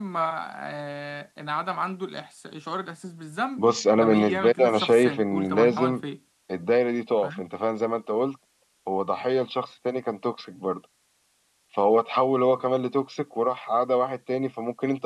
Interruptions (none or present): present